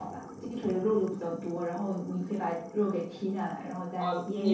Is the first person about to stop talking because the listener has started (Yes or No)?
Yes